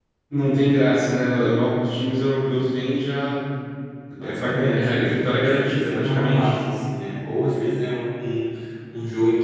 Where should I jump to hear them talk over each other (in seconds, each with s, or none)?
4.2 s